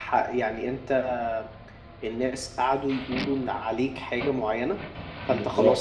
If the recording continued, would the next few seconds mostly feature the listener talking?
No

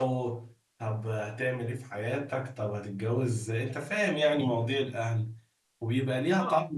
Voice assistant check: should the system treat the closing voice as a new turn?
No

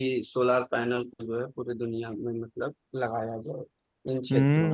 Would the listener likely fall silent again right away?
No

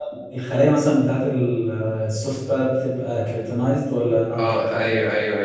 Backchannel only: No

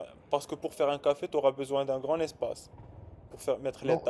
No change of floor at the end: No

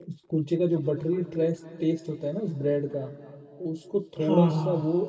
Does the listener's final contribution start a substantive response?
No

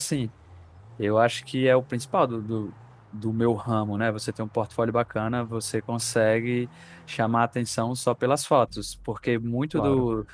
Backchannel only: Yes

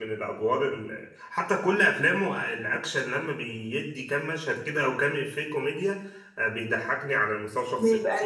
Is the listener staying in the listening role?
Yes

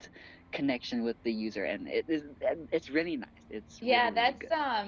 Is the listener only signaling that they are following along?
No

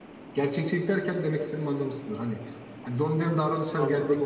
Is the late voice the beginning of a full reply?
No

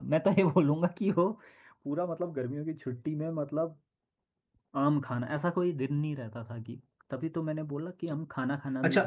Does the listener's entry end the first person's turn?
Yes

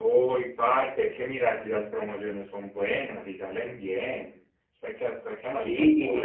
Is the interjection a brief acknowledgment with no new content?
No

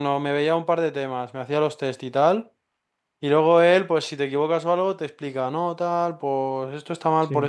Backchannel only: Yes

